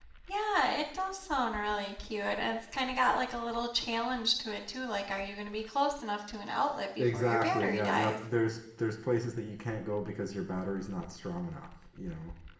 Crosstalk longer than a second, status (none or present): present